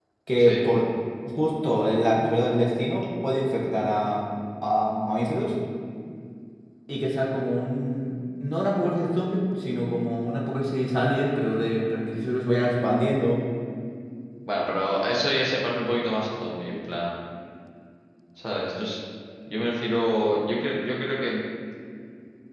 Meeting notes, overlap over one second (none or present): none